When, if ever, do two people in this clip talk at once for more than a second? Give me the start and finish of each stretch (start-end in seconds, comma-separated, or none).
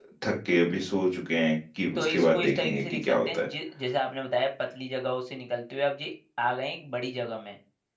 2.0-3.5